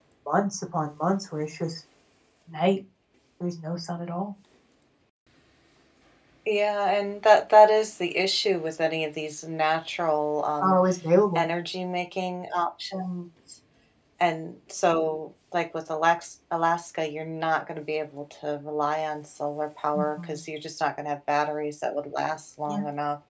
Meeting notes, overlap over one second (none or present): none